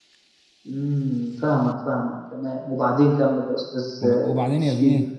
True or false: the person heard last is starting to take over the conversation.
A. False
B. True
B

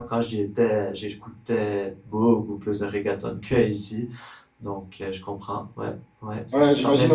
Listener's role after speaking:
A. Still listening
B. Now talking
B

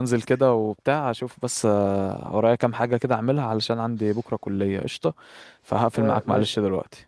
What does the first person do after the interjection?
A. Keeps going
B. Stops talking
B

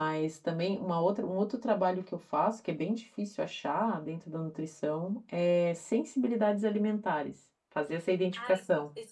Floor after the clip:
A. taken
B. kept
A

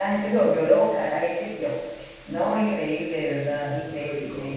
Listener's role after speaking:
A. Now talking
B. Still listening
B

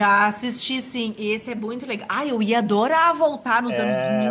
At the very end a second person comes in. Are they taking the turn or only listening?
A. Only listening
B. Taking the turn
B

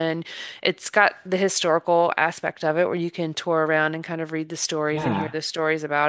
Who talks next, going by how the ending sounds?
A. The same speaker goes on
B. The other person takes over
A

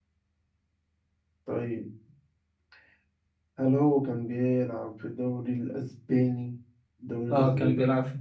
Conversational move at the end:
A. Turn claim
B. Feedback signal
A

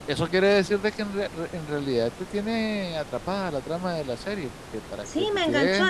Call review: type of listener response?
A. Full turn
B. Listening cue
A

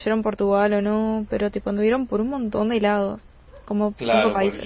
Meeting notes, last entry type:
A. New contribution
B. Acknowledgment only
A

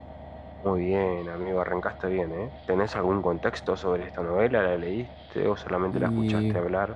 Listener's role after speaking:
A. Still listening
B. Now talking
B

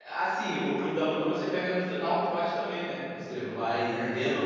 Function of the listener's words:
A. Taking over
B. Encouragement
B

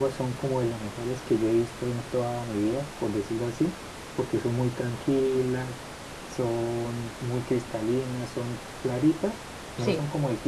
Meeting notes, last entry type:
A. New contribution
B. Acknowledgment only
B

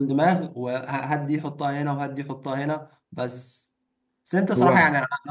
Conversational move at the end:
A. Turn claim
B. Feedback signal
B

